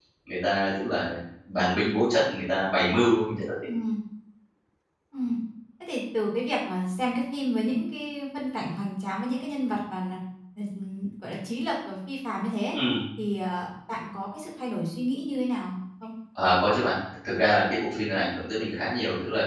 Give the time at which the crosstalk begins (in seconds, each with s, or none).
none